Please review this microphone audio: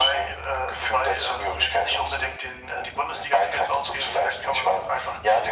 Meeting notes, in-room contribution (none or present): none